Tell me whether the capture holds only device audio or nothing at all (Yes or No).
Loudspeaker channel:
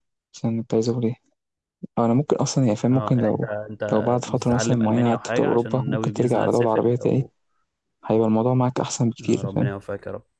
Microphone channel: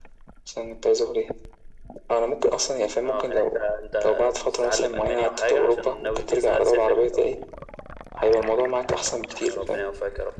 Yes